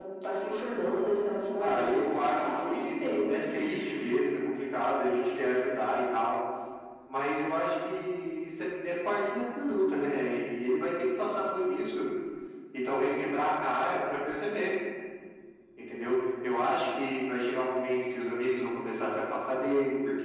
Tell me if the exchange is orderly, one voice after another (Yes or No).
No